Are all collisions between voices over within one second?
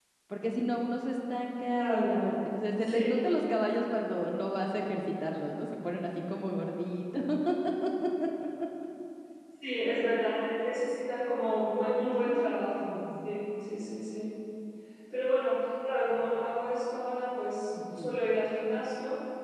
Yes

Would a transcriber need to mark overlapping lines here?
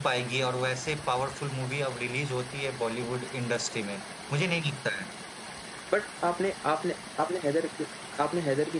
No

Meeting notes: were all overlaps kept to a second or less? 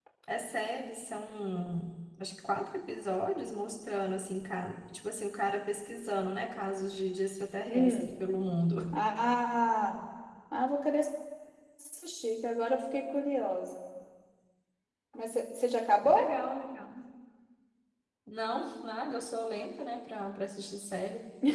Yes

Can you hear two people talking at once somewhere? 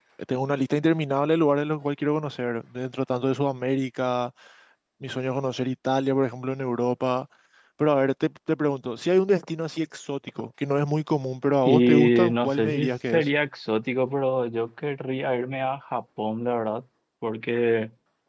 Yes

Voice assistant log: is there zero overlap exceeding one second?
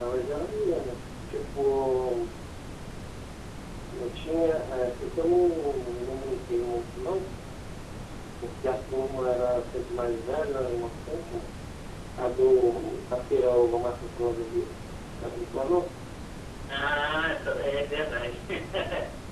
Yes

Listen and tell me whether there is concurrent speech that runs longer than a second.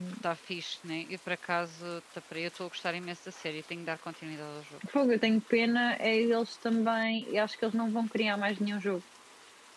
No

